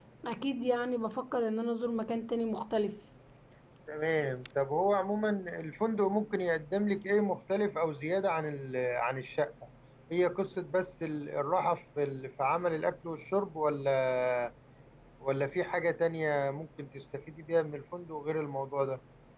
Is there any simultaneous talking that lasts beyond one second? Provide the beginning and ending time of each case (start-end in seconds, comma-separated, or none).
none